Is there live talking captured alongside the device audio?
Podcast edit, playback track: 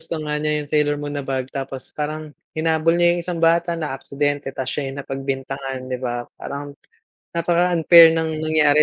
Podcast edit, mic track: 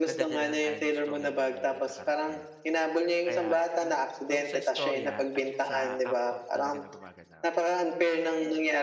Yes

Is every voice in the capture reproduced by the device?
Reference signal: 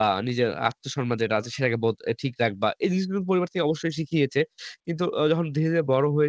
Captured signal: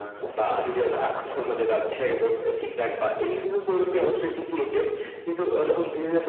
Yes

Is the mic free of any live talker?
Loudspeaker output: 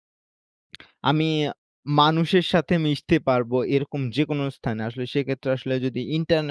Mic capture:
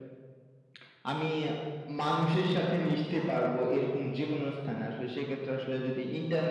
Yes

